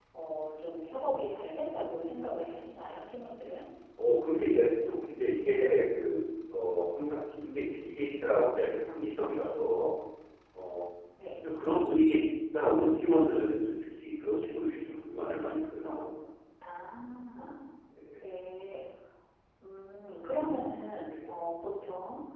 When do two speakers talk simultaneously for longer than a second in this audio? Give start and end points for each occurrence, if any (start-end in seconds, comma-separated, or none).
none